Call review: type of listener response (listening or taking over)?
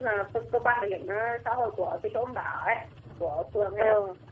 listening